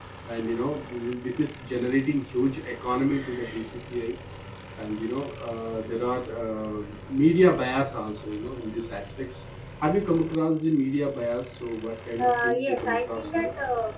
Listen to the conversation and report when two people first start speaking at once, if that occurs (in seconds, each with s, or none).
12.2 s